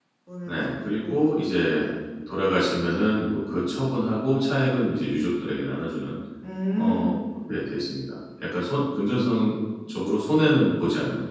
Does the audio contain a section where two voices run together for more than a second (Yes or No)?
Yes